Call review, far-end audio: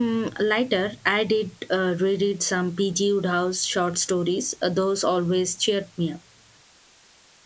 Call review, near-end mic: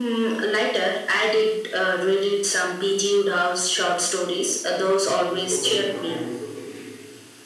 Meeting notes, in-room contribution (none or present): present